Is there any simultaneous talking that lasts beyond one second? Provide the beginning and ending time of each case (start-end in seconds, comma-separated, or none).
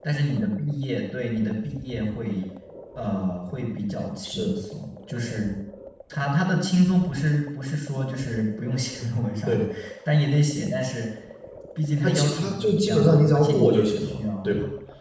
12.0-14.5